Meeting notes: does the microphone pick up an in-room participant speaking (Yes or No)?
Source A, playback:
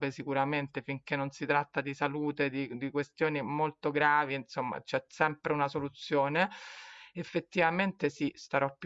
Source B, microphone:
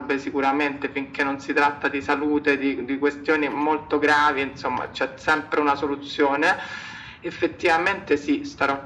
No